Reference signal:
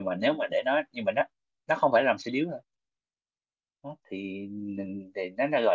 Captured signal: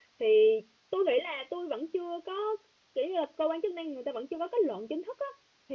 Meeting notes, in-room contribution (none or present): present